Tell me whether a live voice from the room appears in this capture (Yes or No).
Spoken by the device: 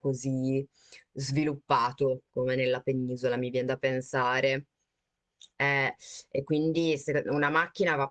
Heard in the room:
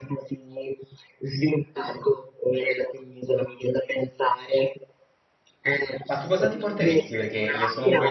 Yes